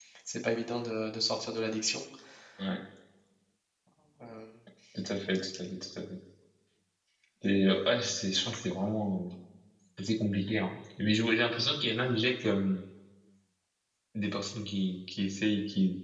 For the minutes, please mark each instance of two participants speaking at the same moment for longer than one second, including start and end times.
none

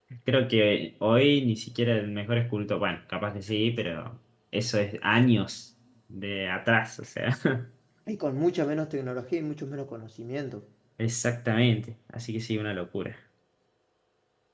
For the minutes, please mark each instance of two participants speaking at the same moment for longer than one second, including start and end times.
none

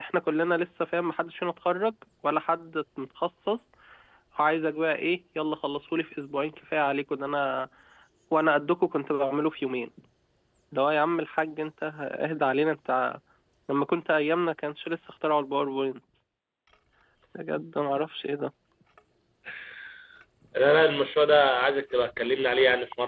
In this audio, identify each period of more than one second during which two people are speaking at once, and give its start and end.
none

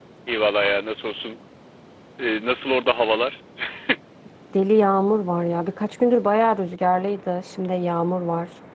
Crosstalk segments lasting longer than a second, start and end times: none

